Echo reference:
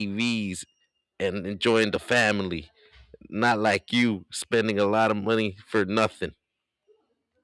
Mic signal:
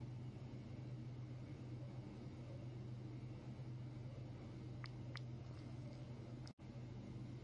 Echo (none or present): none